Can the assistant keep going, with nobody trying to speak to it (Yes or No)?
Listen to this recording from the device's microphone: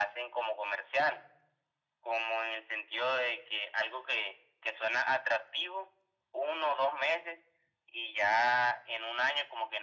Yes